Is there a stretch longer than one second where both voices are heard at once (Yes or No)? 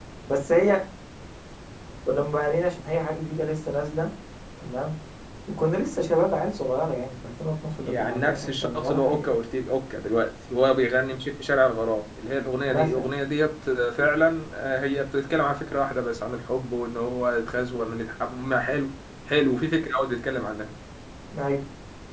Yes